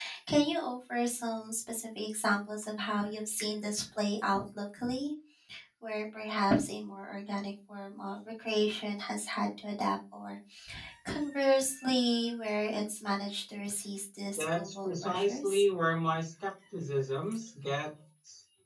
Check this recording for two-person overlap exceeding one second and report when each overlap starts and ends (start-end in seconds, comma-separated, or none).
14.4-15.6